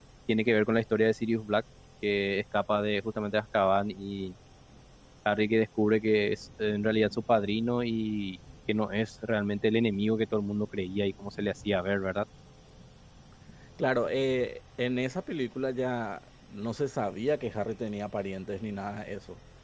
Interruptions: none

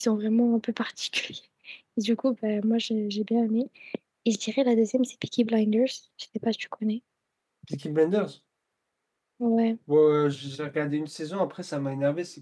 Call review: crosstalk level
none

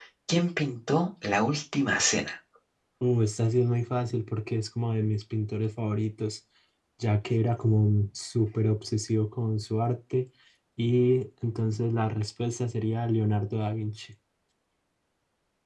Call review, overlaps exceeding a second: none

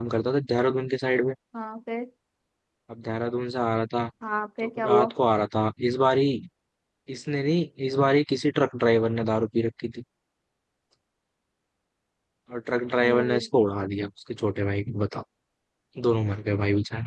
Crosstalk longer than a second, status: none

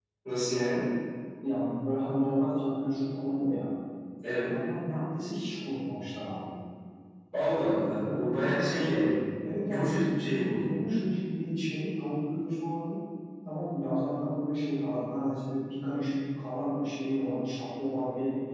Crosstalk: present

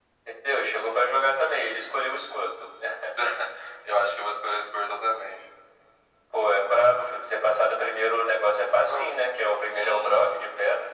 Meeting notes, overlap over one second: none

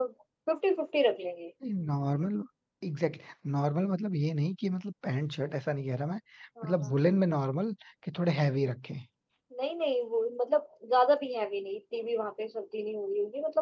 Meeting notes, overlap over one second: none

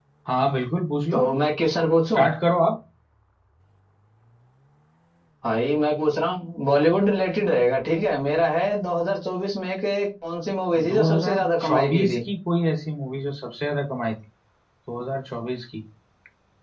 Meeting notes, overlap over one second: present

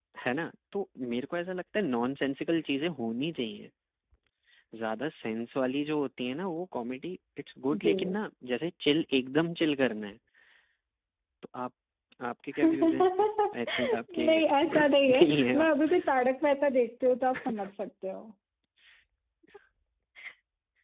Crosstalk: present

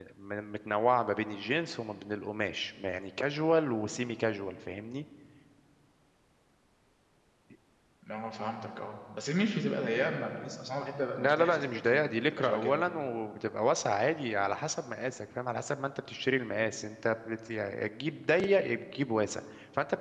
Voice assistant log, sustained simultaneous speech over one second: present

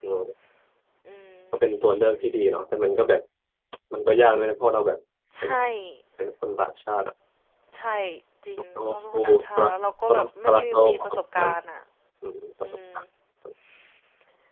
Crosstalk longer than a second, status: present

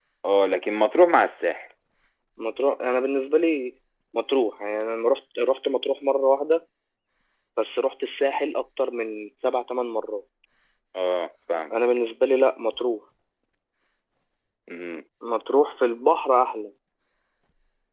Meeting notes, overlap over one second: none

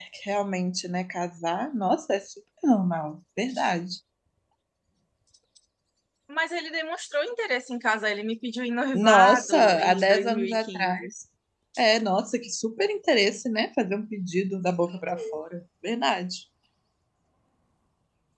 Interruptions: present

